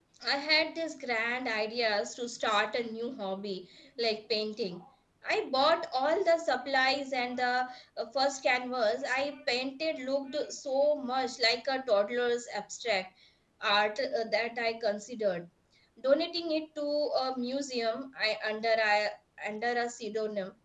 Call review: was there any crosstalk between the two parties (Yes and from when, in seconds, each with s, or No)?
No